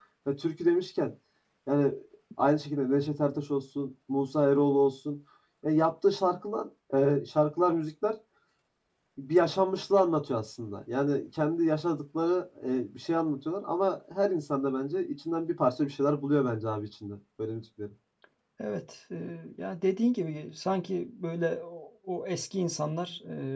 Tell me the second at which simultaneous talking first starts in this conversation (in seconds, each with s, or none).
none